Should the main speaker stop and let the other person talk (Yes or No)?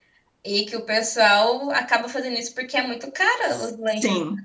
Yes